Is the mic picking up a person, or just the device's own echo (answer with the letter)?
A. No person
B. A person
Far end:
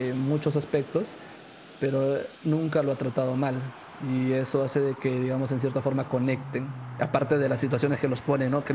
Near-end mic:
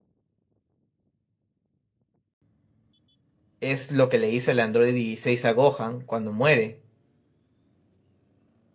B